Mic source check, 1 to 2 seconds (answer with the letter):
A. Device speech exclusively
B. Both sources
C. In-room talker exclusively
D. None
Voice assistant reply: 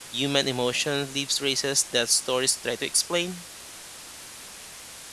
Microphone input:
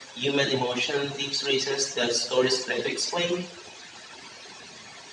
A